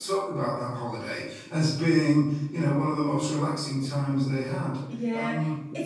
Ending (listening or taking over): taking over